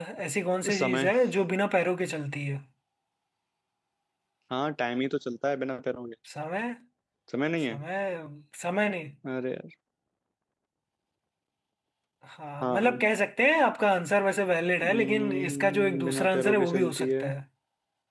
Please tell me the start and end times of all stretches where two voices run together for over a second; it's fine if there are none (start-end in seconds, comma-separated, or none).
14.8-17.2